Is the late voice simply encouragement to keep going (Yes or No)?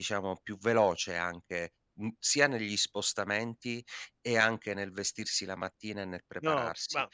No